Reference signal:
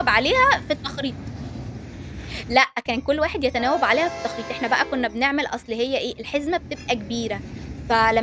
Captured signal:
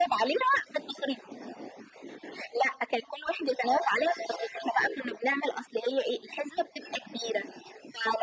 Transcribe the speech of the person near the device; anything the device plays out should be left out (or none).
none